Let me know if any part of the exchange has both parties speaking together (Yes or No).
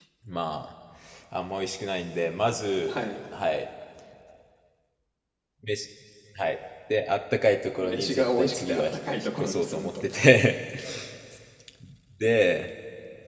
Yes